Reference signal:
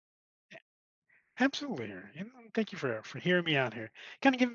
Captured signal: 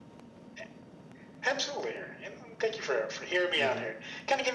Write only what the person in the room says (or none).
Mhm.